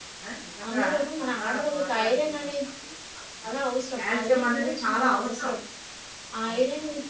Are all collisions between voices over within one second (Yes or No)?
No